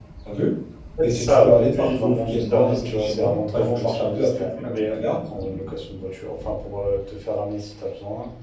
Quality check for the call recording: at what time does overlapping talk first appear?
1.0 s

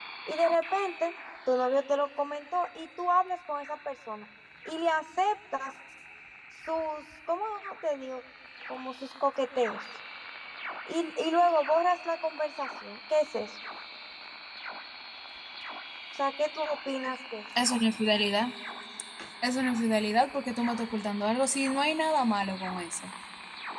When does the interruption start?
none

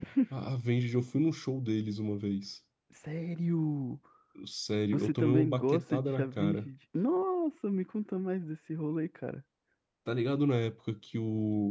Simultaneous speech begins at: 4.9 s

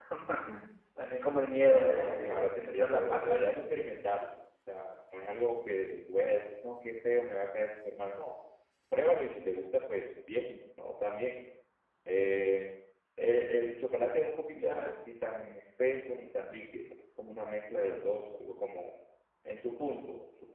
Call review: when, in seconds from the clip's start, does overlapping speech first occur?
1.7 s

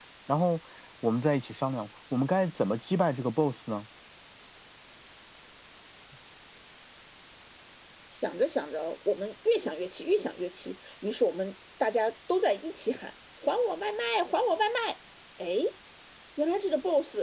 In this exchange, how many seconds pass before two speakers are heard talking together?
none

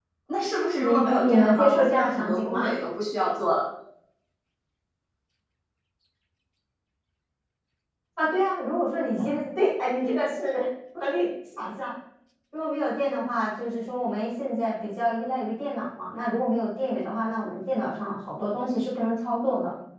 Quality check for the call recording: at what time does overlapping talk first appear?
0.8 s

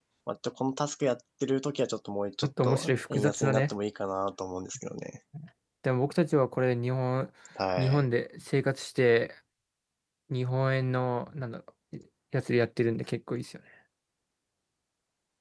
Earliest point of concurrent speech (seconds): 2.4 s

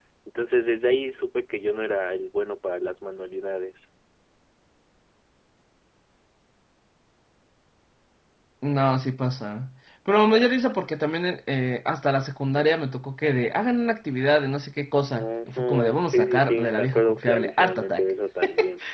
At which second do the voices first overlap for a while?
15.2 s

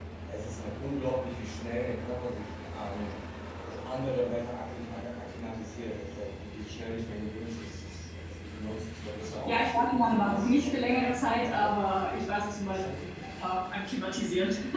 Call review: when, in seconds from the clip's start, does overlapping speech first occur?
9.4 s

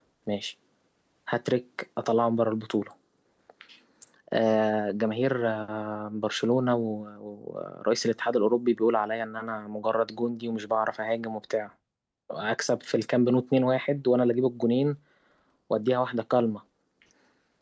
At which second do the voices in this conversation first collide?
none

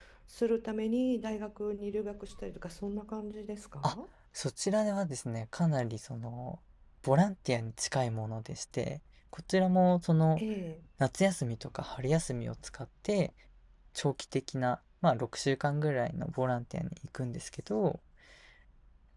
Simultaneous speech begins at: none

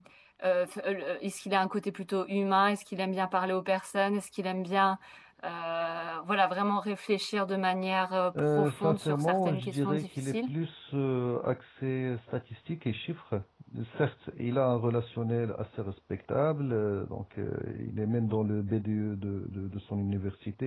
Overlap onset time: 8.3 s

